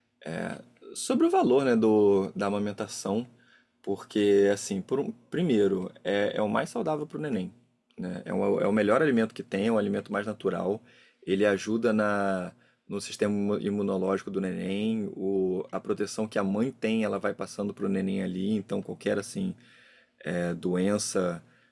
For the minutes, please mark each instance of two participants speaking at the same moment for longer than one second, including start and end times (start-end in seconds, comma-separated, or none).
none